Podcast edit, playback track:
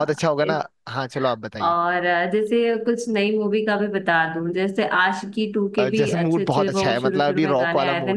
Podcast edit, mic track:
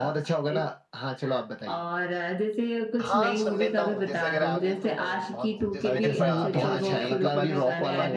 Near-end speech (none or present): present